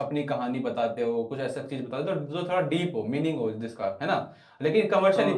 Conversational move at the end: listening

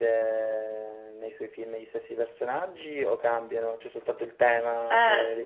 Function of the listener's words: taking over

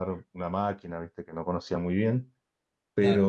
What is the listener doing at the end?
listening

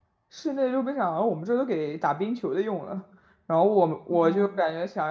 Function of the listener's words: listening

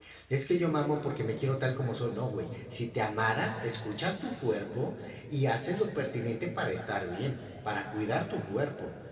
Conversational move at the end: listening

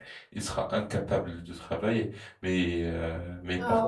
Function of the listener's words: taking over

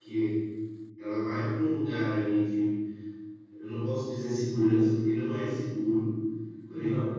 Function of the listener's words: listening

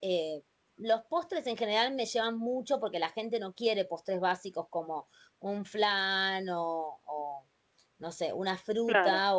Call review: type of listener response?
listening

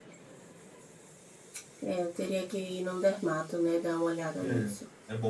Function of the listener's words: taking over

